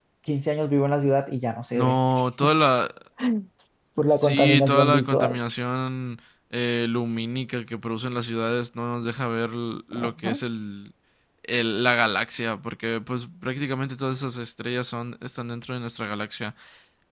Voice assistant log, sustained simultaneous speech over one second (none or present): present